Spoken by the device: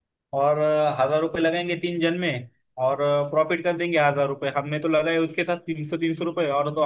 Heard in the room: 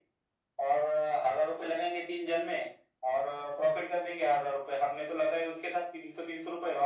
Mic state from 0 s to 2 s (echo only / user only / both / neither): echo only